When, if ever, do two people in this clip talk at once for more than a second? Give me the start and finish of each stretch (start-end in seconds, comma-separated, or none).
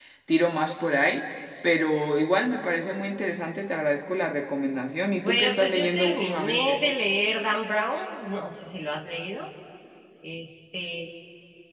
5.2-6.8